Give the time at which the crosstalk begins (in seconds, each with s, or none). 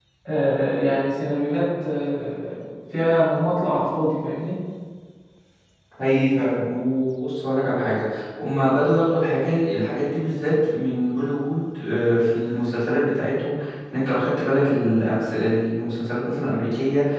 none